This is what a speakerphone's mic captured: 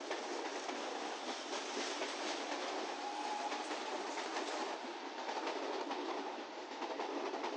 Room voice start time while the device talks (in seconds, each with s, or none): none